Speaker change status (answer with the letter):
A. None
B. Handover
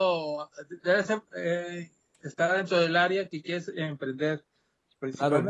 B